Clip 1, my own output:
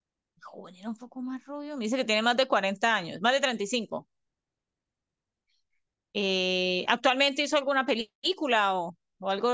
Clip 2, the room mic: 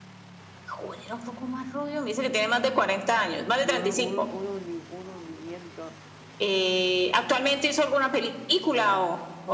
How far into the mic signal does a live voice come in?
3.6 s

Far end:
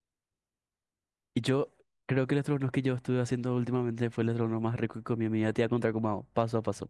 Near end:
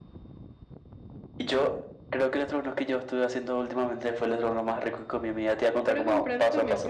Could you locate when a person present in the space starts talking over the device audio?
5.8 s

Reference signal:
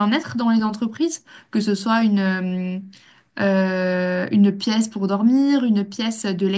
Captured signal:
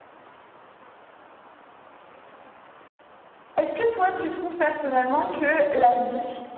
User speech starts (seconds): 3.6 s

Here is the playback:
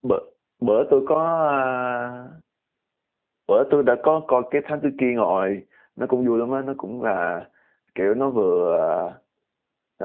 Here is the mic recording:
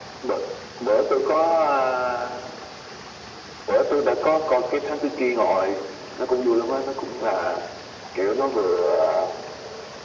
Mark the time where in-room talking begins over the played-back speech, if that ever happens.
none

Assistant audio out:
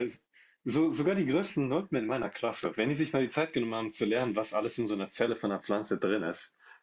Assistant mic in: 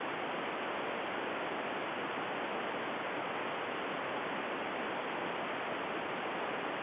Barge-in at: none

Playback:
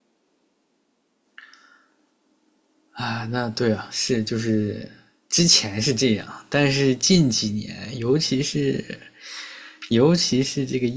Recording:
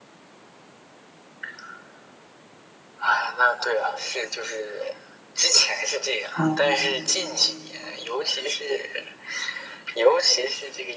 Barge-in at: 6.4 s

